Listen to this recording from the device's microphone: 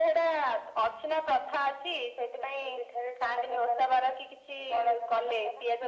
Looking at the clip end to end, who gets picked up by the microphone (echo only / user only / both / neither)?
echo only